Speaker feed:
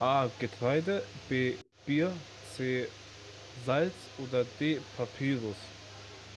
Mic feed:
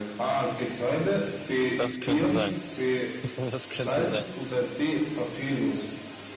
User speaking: Yes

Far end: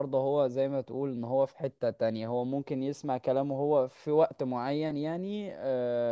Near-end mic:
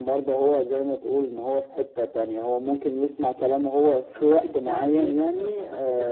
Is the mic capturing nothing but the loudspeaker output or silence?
No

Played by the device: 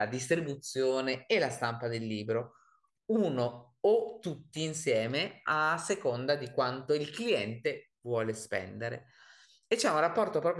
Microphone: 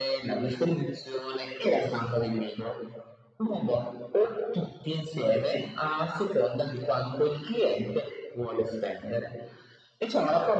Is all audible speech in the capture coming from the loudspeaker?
Yes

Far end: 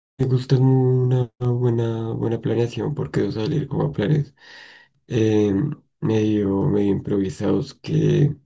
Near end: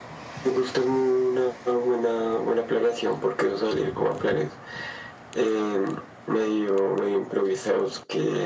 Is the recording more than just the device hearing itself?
No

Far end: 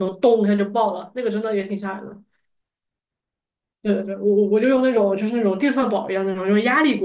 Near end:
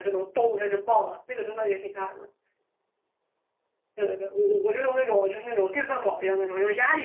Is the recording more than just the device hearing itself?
No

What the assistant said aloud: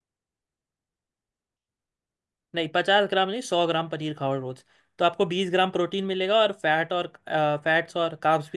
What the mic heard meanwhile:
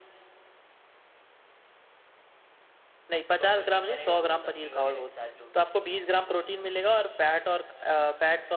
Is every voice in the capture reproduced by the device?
No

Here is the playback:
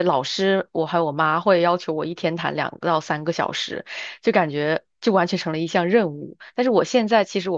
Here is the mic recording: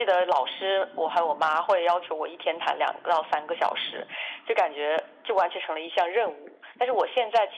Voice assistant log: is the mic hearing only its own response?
Yes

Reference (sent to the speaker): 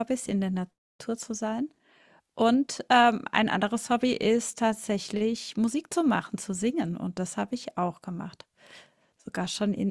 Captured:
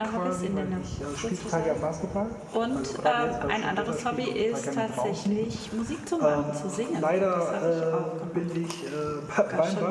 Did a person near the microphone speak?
Yes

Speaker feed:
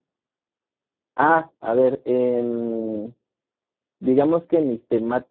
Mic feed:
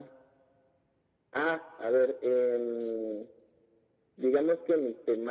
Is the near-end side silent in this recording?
Yes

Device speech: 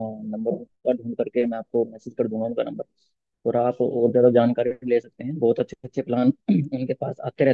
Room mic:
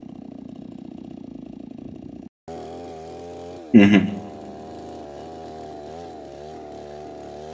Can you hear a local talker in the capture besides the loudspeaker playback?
Yes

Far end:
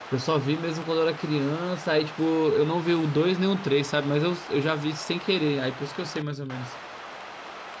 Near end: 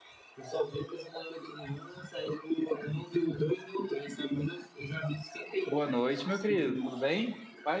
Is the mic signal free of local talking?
No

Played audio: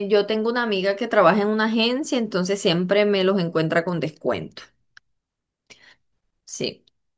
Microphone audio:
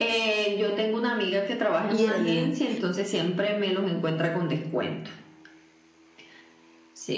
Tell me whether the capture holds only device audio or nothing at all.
No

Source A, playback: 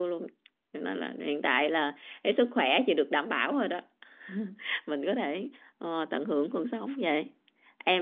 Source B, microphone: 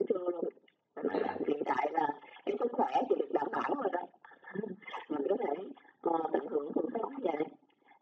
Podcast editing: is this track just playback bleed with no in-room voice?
No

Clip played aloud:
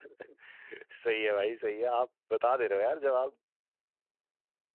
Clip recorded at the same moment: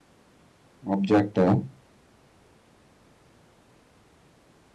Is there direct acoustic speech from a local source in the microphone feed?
Yes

